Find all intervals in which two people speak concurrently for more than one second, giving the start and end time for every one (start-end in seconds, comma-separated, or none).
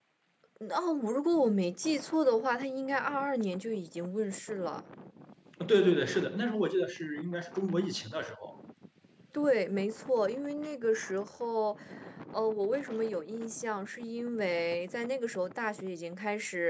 none